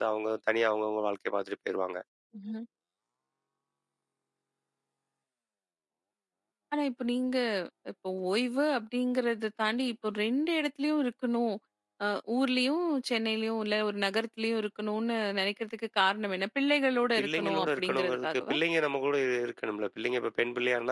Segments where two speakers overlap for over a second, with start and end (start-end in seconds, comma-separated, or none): 17.2-18.6